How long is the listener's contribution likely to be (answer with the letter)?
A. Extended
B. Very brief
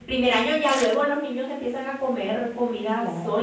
A